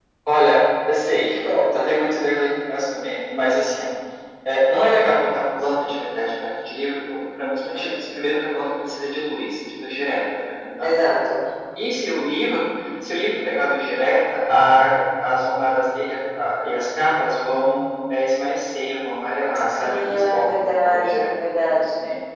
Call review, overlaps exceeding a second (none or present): present